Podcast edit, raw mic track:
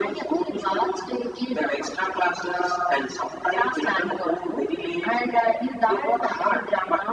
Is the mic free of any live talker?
Yes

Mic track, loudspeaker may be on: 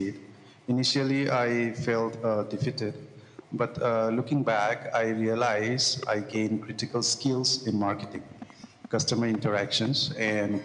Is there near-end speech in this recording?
No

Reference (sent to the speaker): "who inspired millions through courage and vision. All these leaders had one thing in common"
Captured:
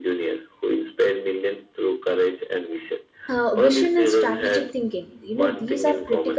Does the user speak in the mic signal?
Yes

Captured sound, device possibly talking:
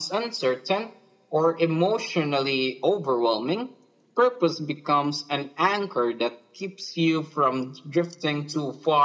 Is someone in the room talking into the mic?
No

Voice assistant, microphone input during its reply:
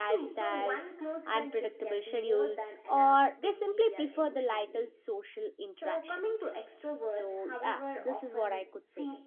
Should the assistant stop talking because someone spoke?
Yes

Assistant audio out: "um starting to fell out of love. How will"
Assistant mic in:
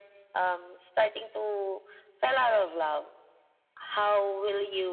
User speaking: No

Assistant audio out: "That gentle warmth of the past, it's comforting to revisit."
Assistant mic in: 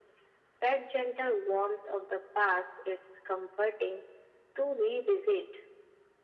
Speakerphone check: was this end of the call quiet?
Yes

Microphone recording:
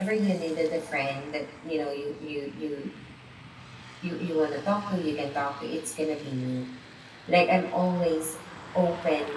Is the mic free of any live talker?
No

